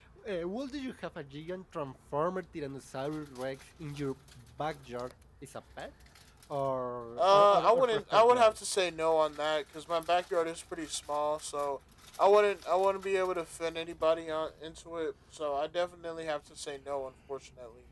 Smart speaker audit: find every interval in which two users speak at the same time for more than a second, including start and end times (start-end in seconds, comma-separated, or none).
7.2-8.6